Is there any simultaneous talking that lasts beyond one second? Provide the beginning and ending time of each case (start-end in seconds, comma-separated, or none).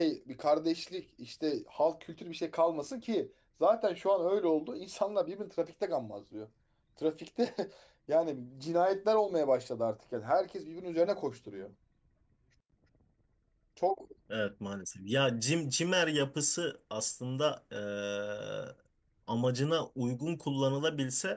none